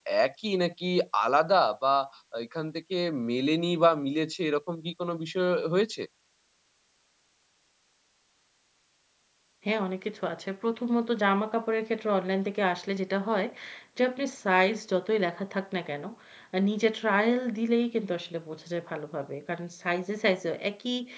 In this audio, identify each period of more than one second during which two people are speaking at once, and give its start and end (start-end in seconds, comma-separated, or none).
none